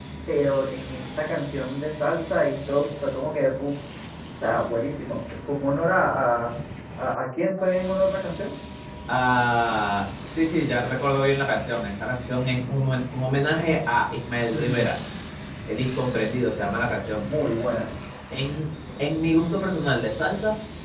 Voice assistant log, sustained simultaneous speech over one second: none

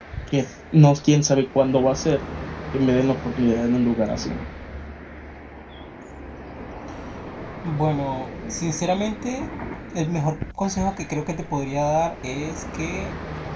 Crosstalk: none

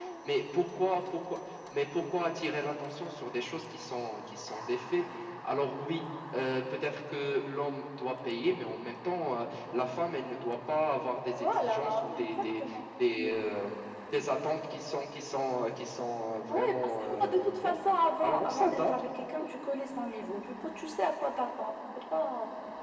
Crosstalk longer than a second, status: present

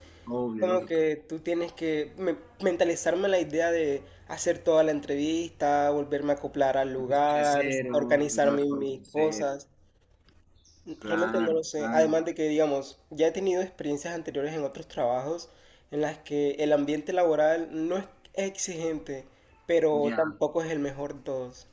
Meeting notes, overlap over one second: present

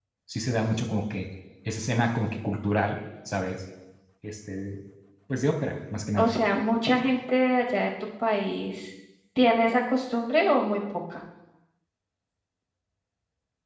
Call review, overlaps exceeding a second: none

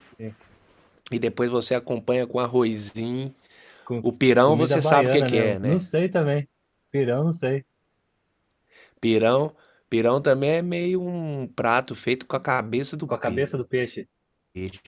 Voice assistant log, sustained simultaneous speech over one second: present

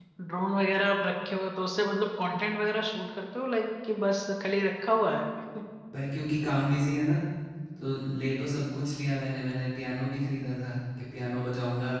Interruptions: none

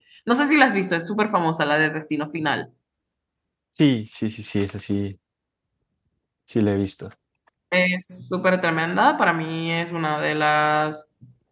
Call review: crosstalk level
none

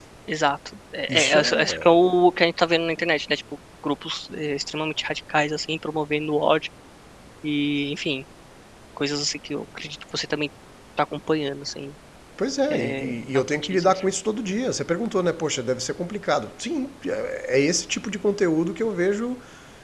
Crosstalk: present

